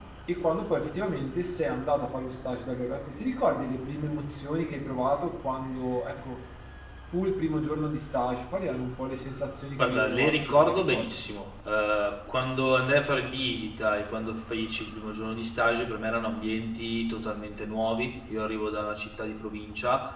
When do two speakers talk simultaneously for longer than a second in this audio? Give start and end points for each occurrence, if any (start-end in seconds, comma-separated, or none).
9.8-11.0